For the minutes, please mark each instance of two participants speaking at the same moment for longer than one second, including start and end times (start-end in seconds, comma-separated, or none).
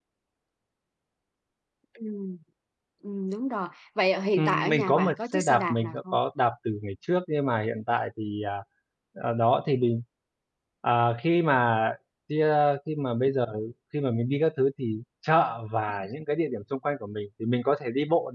4.4-6.2